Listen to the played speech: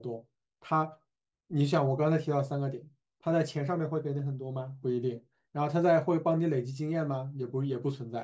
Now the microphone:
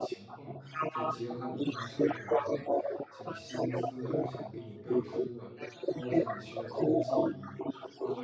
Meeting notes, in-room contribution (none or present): present